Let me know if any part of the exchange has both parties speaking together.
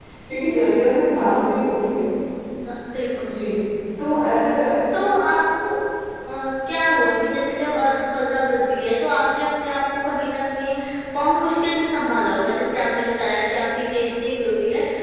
No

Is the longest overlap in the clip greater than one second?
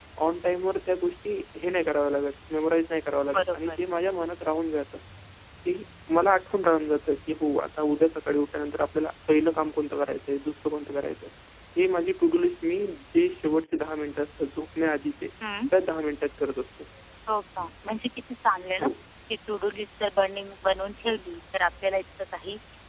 No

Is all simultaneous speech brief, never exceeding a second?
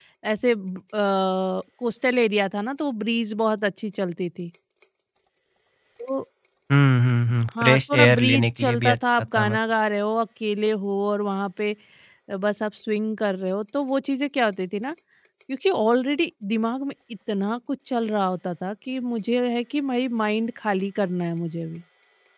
No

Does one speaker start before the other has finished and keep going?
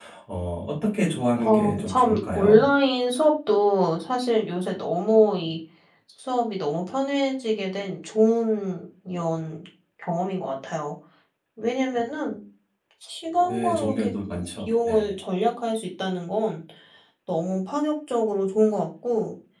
Yes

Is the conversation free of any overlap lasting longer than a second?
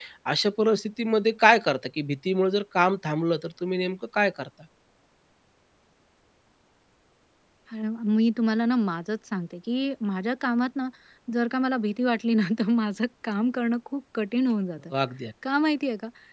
Yes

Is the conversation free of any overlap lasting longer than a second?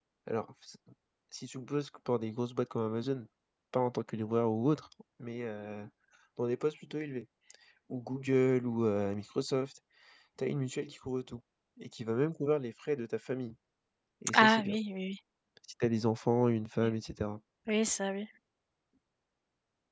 Yes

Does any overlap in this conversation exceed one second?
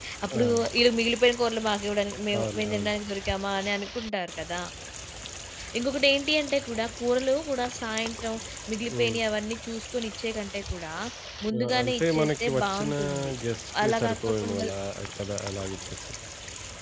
Yes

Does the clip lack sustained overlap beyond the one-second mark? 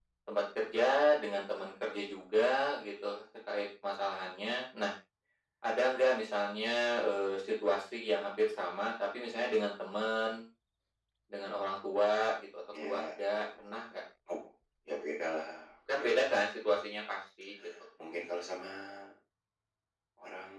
Yes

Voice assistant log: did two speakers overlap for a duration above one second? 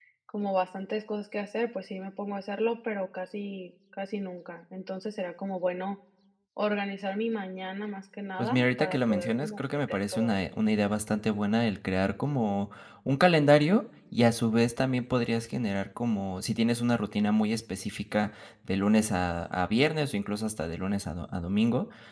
Yes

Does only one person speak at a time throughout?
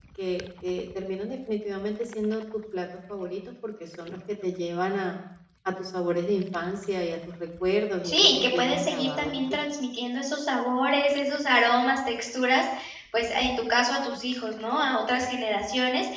No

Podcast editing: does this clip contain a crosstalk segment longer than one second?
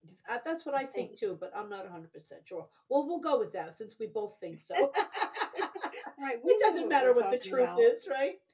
Yes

